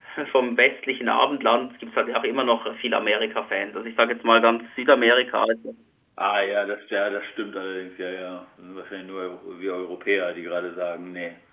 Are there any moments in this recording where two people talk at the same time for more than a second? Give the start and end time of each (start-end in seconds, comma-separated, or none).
none